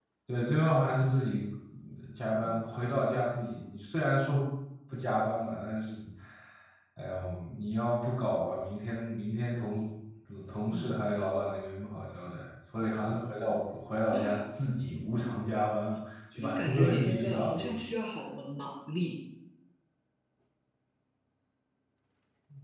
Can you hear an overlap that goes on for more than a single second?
Yes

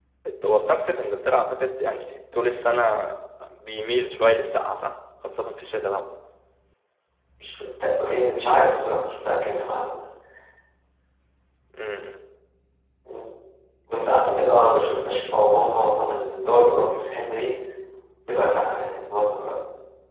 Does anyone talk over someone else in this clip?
No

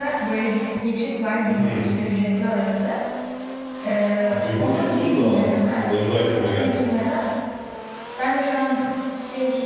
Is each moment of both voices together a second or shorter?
No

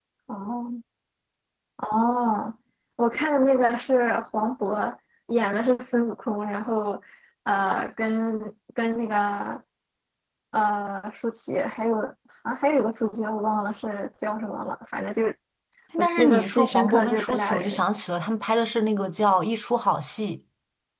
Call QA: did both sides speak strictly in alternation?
No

